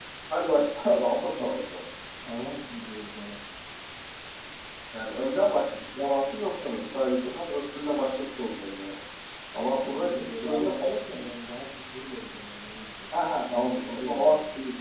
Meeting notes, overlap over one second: present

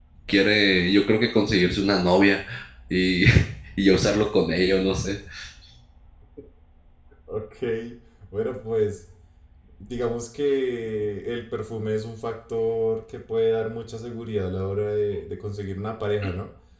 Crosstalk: none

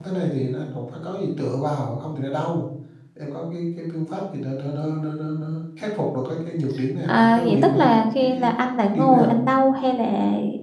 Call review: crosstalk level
present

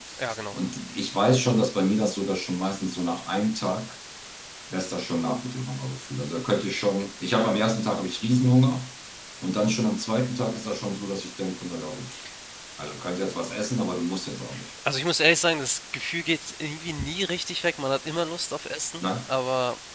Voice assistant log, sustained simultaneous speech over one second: none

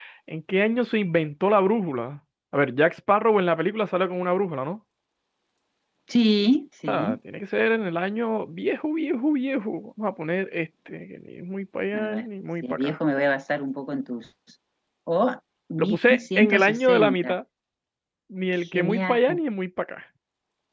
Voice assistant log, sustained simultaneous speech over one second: present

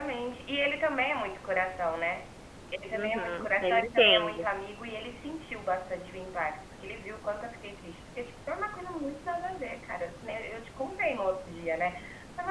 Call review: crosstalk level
present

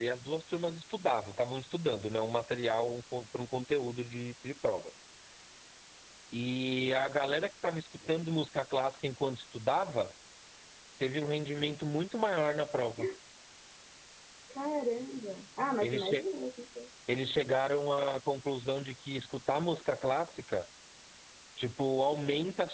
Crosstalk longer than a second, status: none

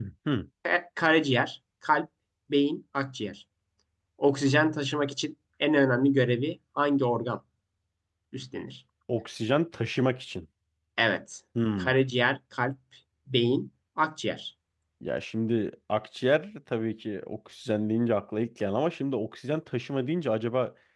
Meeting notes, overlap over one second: none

